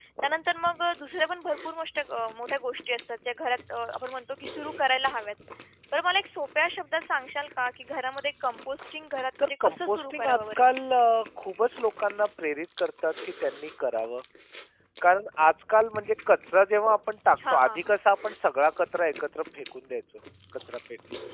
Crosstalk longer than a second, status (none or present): present